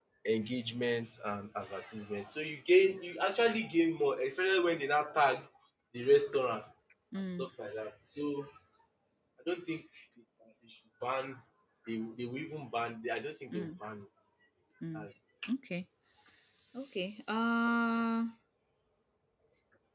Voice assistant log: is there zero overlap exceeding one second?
Yes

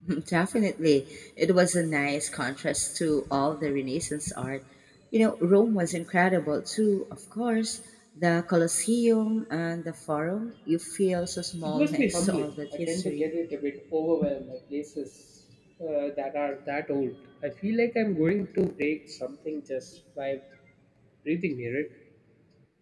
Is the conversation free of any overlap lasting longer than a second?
No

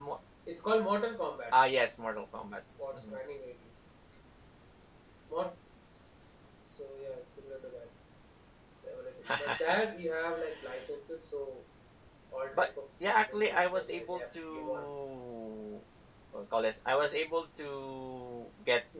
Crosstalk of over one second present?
Yes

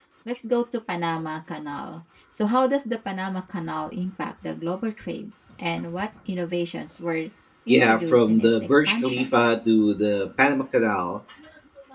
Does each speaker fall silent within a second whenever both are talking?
No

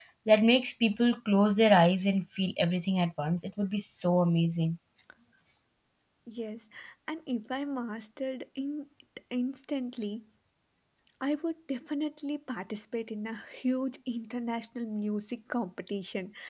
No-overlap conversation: Yes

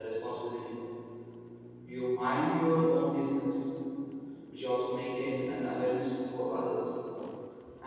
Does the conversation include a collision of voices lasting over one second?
No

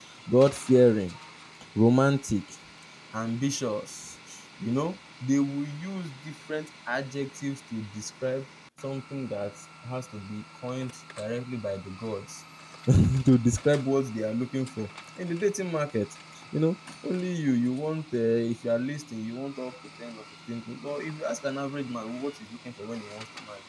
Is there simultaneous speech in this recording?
No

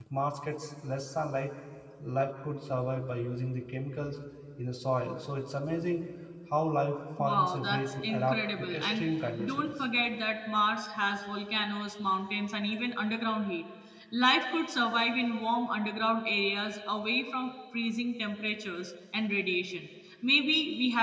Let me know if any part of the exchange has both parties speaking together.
Yes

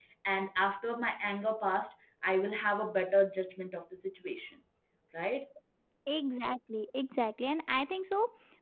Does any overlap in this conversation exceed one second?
No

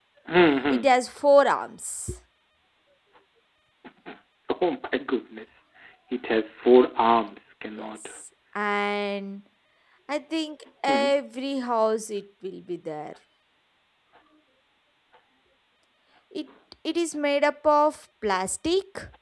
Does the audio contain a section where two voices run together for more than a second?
No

